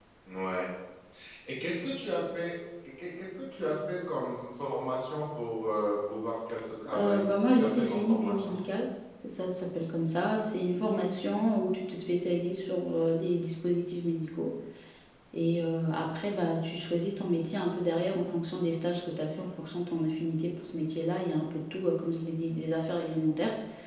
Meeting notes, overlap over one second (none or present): present